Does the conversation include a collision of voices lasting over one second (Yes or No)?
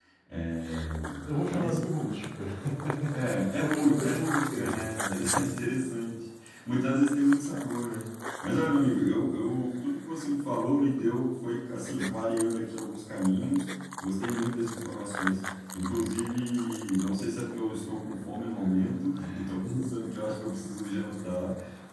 Yes